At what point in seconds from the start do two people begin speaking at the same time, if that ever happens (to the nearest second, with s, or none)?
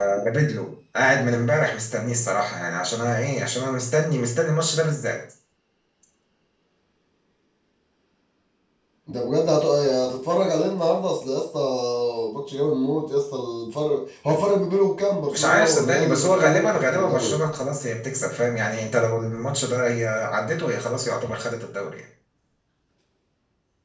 15 s